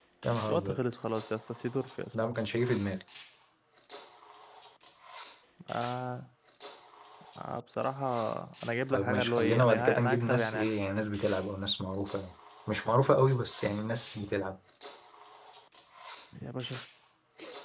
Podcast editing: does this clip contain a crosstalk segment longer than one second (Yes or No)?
Yes